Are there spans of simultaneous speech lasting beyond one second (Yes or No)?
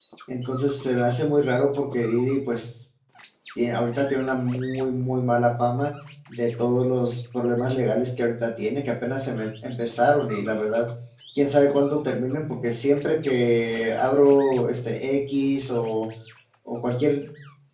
No